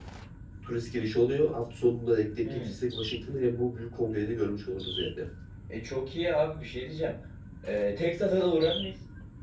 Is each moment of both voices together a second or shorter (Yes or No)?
Yes